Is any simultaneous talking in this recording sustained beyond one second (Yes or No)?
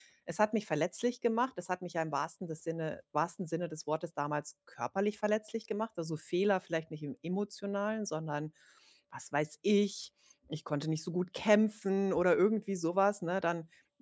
No